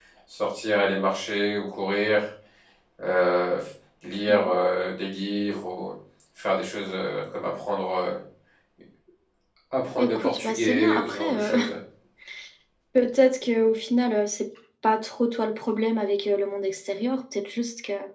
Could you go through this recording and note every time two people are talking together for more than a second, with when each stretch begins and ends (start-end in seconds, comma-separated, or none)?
10.0-11.6